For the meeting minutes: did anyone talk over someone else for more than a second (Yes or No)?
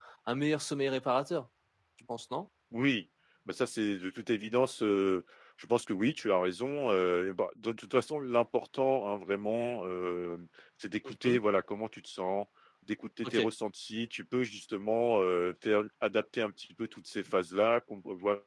No